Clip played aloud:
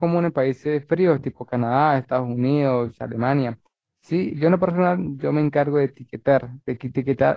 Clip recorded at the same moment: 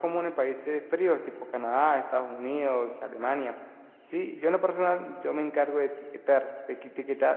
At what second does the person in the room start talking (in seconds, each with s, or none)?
none